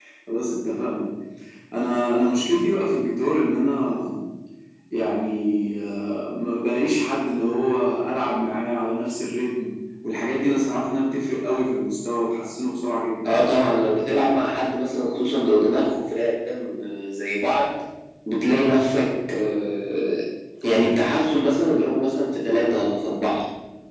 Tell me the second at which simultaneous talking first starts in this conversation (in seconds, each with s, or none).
none